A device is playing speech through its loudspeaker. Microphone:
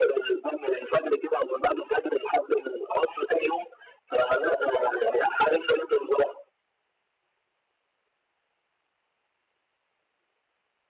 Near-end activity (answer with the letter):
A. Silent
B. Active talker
A